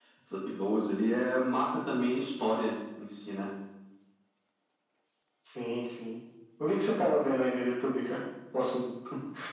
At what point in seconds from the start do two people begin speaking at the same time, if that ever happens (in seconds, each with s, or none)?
none